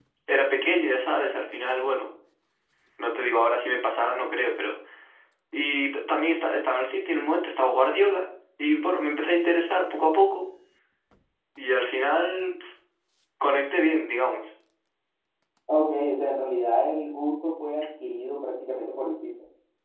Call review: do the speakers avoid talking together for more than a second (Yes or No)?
Yes